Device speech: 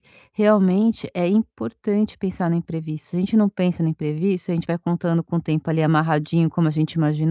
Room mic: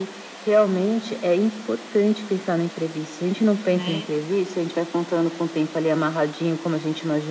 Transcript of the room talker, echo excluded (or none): né.